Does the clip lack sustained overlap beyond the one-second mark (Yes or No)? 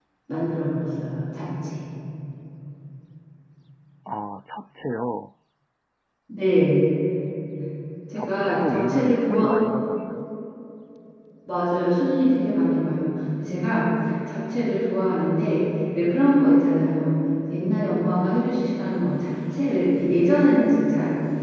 No